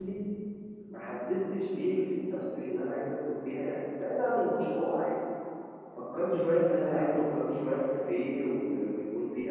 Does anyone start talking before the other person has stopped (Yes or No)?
No